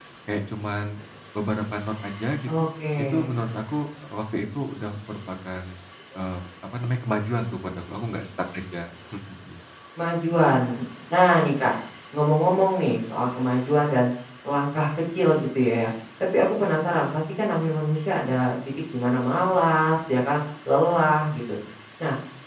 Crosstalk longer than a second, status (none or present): none